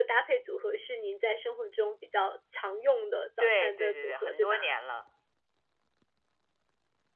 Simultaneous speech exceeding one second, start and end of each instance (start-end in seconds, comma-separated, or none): 3.4-4.7